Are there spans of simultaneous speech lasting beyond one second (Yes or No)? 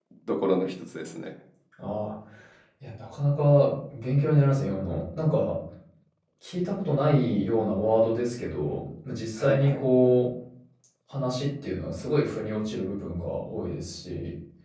No